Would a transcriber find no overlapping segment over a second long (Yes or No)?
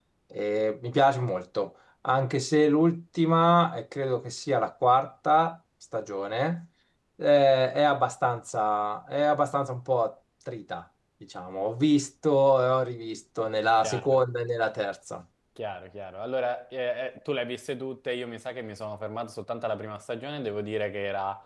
Yes